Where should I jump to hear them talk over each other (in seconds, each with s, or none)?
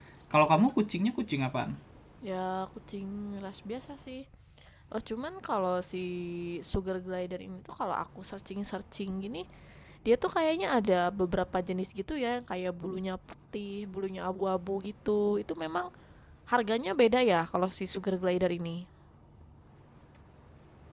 none